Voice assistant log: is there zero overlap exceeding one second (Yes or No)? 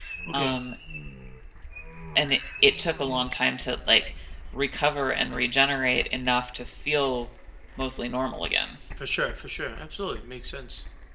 Yes